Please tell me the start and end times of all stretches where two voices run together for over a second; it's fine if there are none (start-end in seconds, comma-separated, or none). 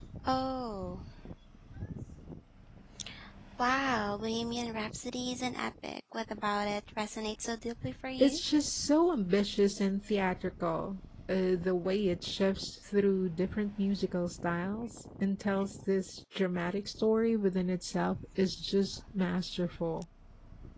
none